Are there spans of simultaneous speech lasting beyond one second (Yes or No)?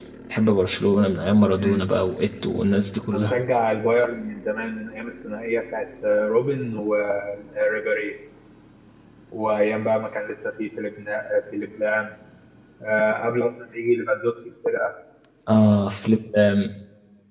No